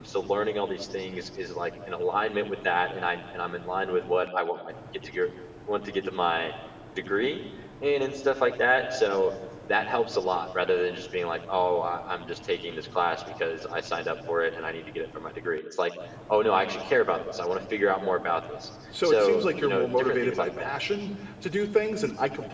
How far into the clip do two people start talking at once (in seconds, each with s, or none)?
18.9 s